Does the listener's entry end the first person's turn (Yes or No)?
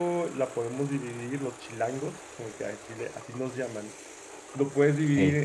No